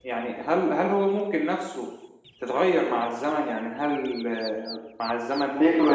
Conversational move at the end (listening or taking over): listening